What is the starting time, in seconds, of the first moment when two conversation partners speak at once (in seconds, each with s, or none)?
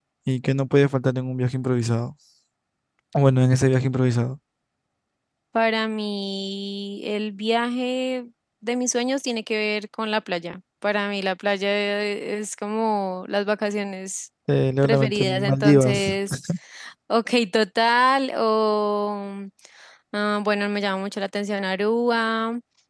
14.8 s